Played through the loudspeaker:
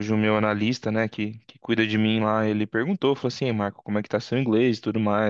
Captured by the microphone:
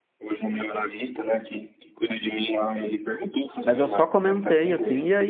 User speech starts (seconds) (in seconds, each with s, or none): 3.6 s